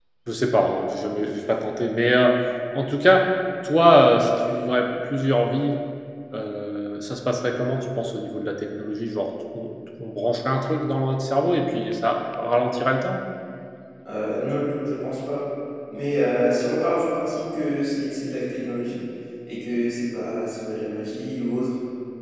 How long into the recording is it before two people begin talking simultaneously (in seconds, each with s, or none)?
none